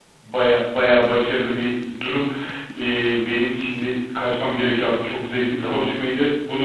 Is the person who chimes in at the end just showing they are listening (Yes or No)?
Yes